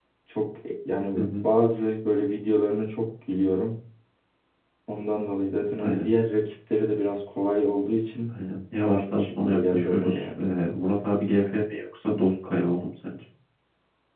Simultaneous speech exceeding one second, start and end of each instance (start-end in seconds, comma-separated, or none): 8.8-10.5